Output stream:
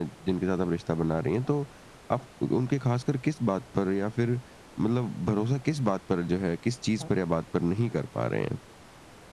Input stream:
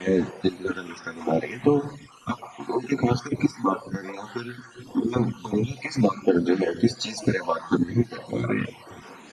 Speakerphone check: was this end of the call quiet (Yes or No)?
Yes